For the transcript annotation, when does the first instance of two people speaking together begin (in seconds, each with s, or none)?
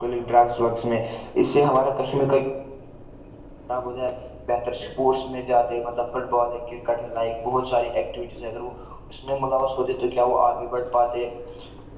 none